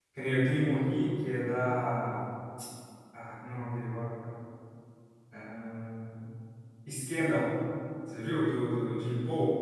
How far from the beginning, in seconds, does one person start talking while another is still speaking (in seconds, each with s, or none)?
none